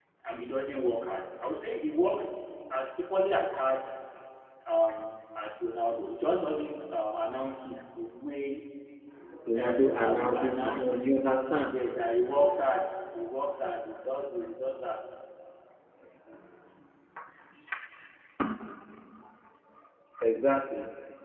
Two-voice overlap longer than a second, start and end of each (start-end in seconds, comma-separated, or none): 9.6-11.8